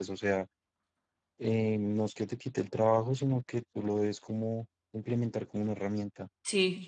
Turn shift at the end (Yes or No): Yes